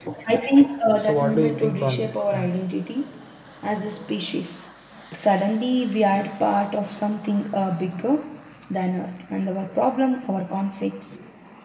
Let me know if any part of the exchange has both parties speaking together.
Yes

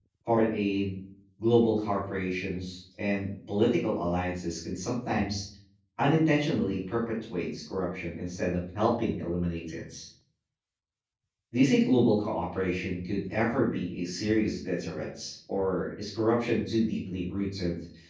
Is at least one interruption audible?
No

